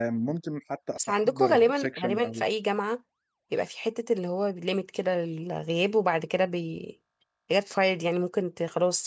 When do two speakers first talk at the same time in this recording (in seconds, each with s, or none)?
1.1 s